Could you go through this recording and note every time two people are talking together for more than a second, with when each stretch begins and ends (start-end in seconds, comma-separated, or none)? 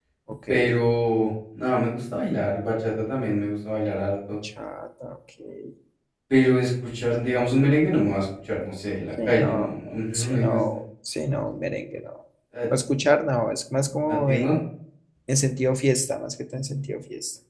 9.2-10.8